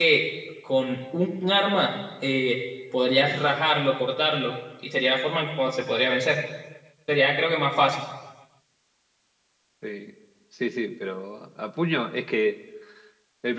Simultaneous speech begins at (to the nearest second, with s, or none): none